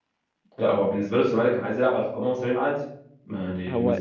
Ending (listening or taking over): taking over